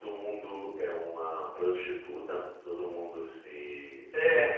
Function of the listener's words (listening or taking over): listening